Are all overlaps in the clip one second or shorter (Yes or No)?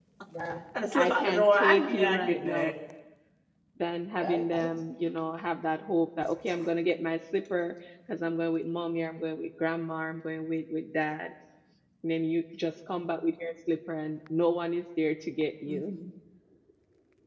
No